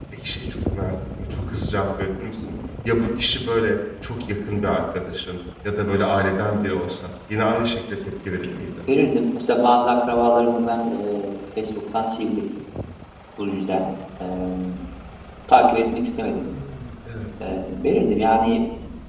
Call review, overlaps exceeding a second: none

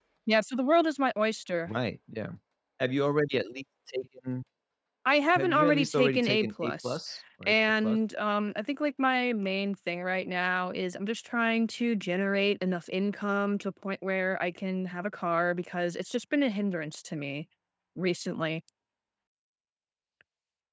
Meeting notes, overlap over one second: present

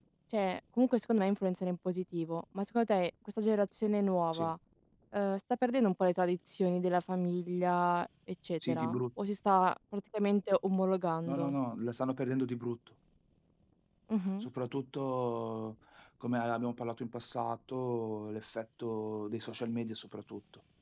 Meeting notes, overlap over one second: none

